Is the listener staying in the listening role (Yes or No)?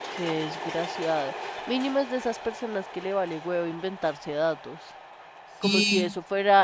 Yes